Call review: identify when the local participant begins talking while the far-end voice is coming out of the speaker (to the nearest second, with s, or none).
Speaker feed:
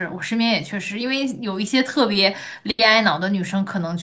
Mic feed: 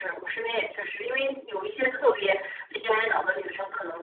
none